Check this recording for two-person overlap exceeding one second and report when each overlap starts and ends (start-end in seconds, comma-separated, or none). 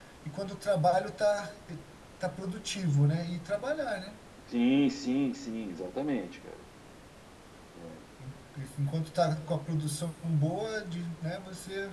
none